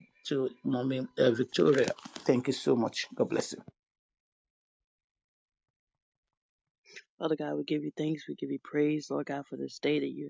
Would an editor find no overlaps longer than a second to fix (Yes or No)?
Yes